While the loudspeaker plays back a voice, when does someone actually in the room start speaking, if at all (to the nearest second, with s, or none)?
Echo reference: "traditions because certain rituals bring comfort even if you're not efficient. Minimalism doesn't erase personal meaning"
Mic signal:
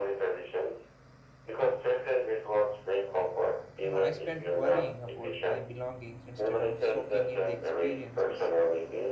4 s